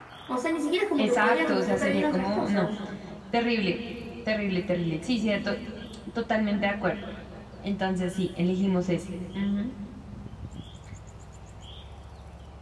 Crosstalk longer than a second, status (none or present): present